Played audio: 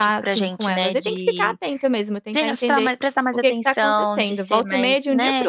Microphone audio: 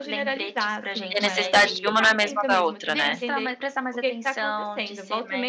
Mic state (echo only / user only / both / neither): both